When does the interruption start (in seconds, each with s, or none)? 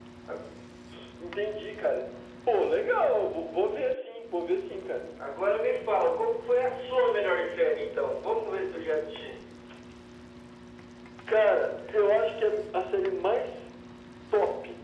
none